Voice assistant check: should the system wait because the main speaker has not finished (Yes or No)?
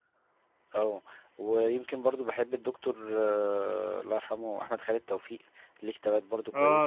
No